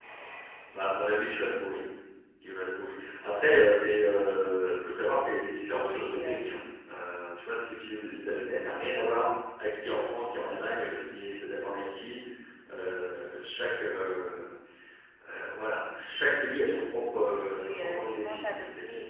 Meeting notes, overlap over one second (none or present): present